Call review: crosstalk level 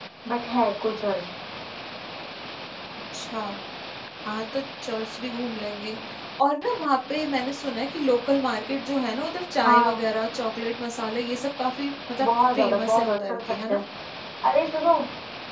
present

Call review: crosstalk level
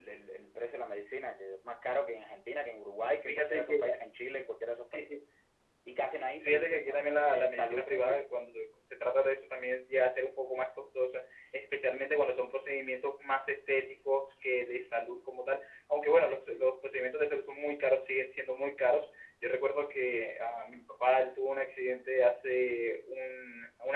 present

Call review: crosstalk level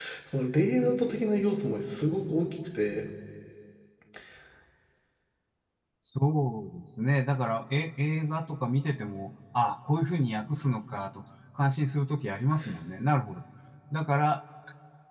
none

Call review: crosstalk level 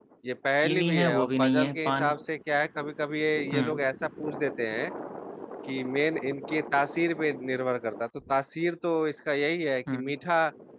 present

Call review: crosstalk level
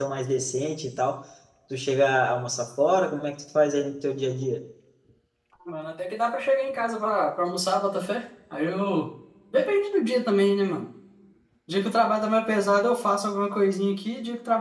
none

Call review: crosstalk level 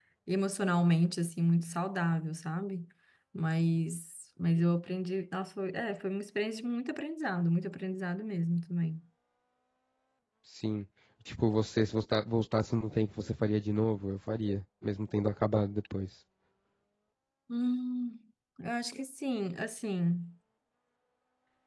none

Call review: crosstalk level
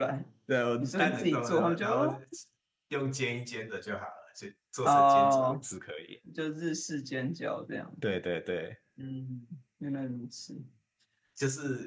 present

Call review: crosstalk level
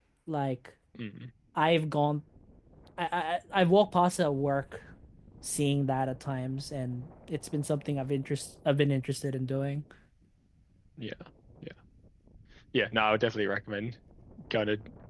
none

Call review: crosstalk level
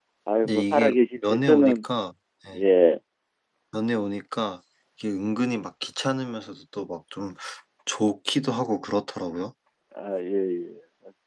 present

